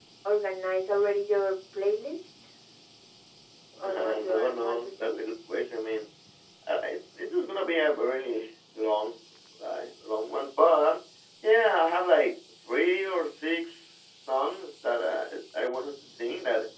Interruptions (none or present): present